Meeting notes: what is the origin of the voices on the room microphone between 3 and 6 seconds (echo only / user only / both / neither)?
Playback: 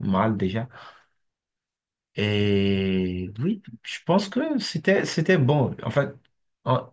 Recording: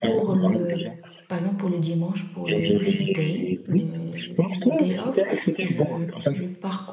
both